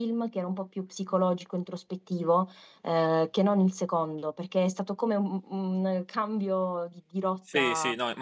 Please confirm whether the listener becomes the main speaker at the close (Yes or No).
Yes